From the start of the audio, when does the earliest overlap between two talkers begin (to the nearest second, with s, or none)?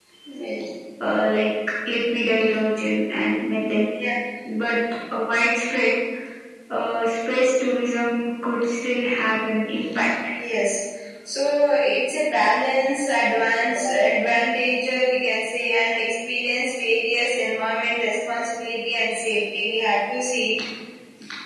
none